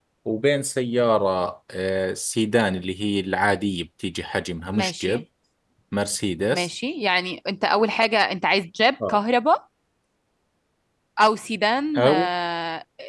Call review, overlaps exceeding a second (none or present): none